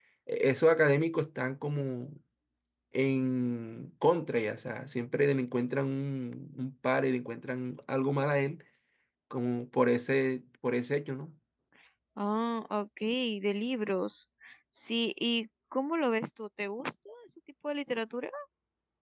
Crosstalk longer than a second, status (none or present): none